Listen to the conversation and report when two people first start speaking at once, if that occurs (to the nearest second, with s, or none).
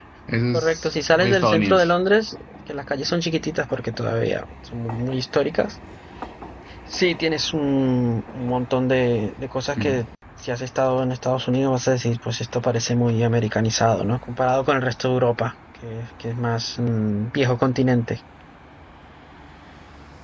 1 s